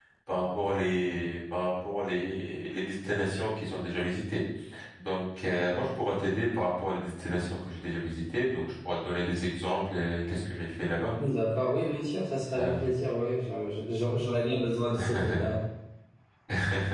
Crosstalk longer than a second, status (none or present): none